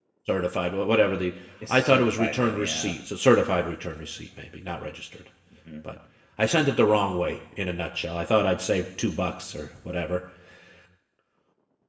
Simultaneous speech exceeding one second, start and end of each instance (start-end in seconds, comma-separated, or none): 1.7-3.0